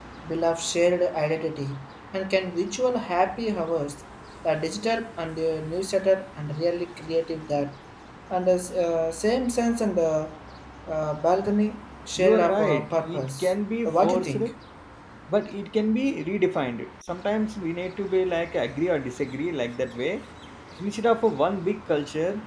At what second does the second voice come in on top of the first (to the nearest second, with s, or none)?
12 s